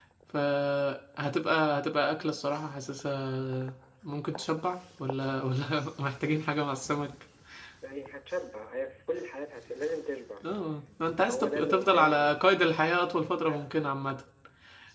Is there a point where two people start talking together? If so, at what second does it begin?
11.2 s

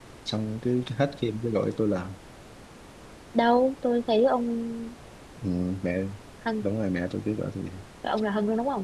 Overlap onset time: none

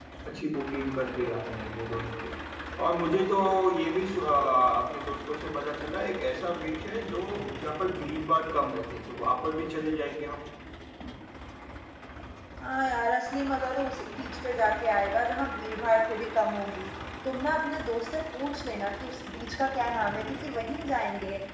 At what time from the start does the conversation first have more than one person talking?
none

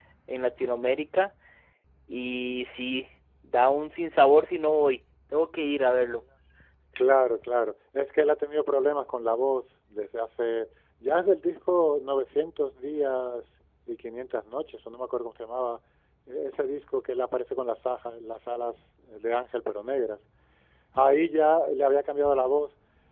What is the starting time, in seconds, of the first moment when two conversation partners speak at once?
none

